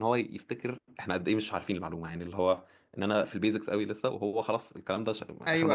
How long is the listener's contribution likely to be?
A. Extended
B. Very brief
A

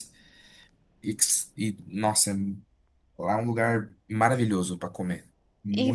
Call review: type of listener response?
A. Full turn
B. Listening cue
A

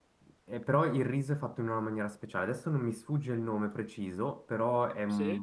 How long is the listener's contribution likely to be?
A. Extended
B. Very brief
B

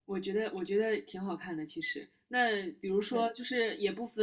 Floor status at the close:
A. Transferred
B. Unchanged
B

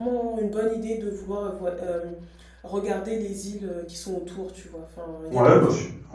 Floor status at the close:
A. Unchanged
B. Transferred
B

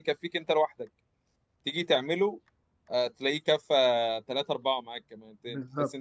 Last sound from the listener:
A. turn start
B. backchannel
B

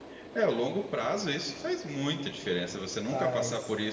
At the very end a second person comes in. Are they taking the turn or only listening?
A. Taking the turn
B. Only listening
B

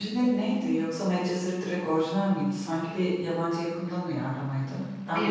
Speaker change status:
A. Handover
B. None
A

